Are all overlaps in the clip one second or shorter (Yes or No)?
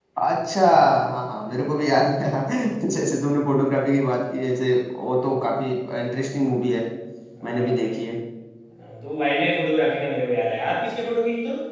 Yes